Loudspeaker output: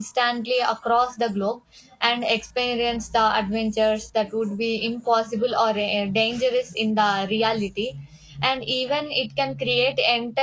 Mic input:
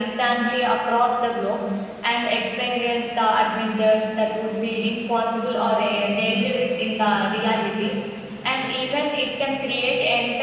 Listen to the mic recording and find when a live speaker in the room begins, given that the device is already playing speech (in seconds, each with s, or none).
none